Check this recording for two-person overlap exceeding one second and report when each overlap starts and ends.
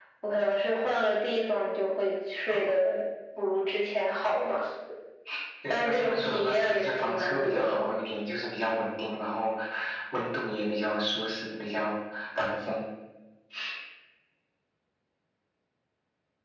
5.7-7.9

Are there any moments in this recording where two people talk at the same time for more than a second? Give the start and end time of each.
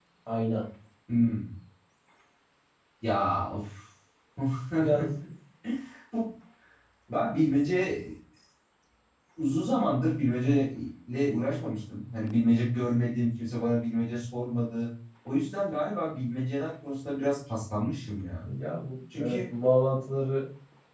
none

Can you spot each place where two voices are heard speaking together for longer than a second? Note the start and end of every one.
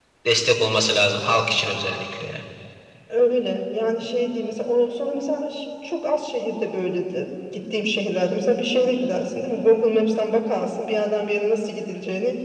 none

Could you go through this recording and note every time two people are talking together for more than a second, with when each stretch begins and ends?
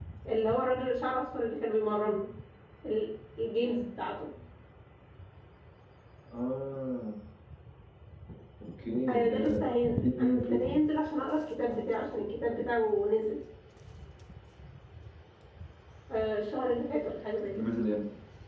9.3-10.8

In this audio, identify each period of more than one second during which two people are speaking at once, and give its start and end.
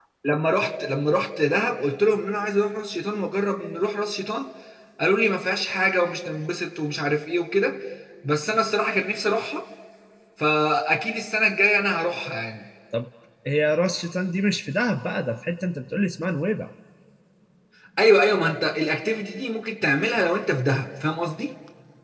none

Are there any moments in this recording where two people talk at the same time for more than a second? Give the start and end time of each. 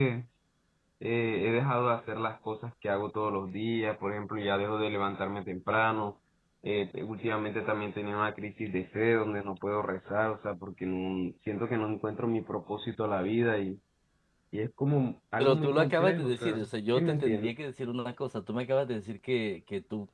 15.4-17.5

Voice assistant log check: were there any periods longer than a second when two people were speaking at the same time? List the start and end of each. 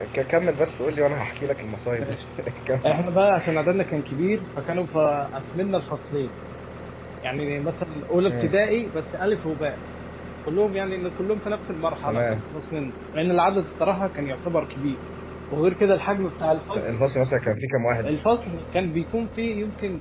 none

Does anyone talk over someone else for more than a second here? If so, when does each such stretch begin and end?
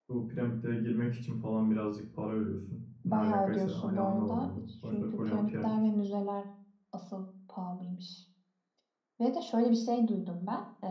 3.0-5.7

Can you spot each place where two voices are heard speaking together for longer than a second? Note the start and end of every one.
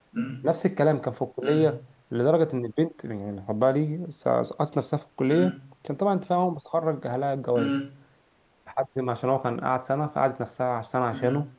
none

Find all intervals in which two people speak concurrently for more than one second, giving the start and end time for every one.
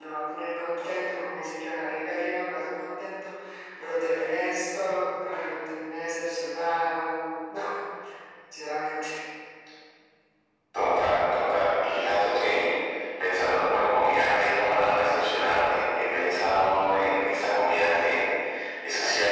none

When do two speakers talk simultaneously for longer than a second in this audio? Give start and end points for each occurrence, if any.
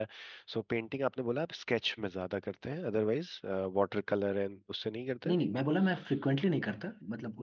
none

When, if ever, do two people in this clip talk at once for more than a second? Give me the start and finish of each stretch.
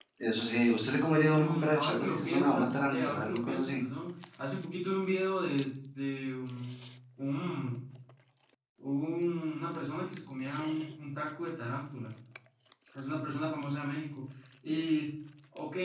1.3-3.8

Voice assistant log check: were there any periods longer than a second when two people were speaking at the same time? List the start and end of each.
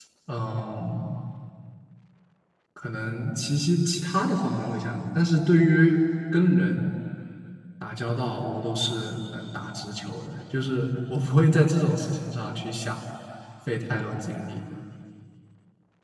none

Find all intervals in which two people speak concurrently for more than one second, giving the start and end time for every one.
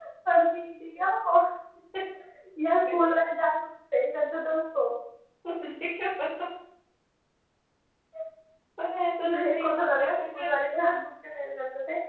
9.2-10.5

